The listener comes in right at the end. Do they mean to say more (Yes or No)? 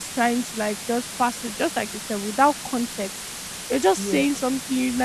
No